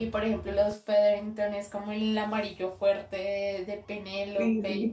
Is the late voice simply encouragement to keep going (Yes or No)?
Yes